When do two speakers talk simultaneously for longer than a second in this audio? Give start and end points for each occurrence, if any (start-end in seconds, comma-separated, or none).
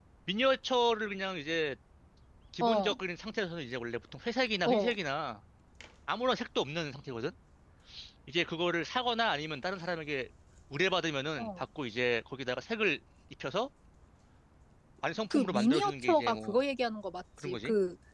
15.3-16.6